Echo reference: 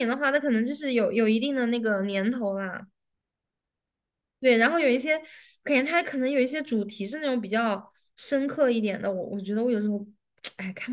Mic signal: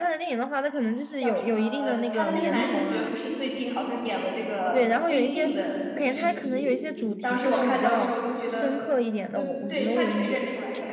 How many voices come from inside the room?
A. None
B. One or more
B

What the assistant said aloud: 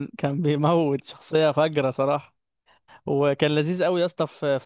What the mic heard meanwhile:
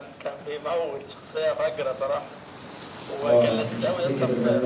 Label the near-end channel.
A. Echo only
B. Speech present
B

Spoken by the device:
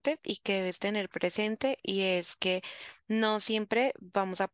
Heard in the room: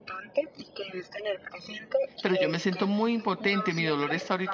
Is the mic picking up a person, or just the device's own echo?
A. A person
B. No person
A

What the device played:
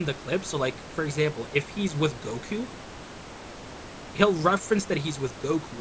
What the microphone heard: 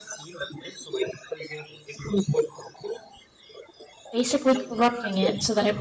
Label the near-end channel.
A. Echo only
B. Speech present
B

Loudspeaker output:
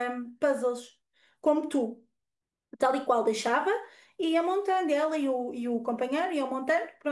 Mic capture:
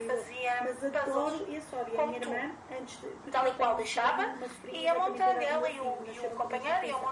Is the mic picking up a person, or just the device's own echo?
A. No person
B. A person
B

